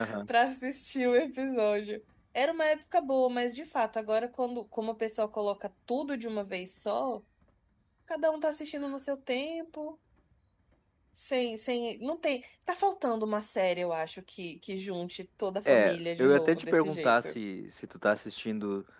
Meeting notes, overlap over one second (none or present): present